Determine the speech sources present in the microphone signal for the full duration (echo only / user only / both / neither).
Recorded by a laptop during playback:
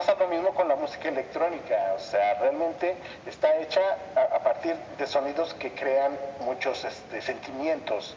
echo only